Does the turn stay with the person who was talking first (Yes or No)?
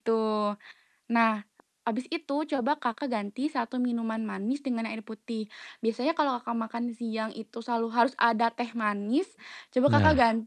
Yes